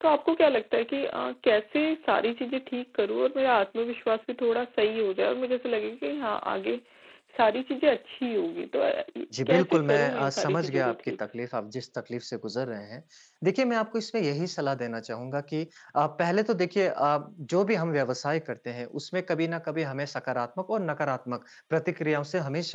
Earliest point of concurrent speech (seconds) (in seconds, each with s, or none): 9.3 s